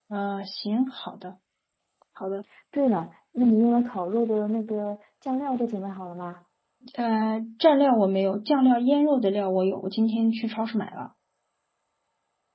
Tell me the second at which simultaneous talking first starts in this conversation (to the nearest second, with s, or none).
none